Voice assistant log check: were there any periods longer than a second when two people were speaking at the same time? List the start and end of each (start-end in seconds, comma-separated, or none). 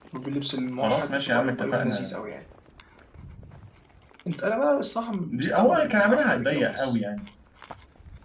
0.8-2.2, 5.3-7.0